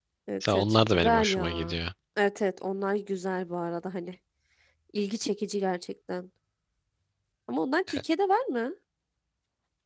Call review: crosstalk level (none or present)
present